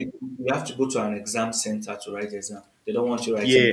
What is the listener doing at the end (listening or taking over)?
taking over